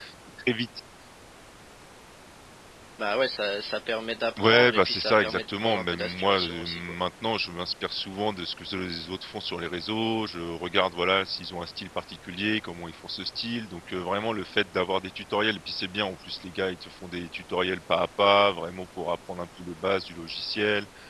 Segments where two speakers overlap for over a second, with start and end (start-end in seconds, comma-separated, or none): 4.4-6.8